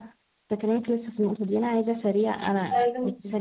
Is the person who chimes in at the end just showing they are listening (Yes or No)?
Yes